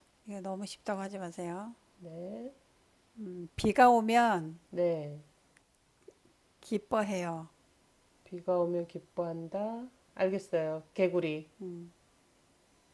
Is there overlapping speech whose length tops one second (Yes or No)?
No